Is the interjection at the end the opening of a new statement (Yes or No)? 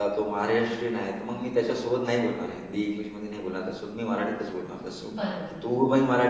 No